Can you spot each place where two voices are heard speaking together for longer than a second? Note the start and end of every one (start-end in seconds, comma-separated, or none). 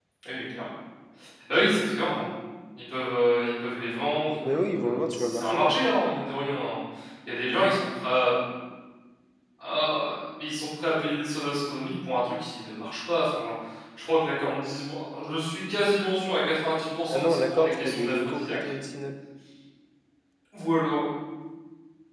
4.5-5.7, 17.1-18.6